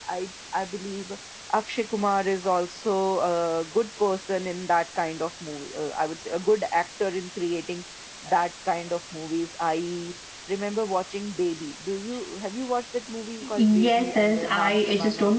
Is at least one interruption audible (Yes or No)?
Yes